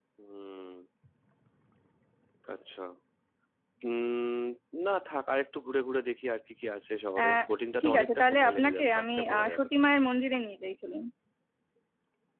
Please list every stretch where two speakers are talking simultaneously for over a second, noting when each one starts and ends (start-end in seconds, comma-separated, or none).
7.8-9.7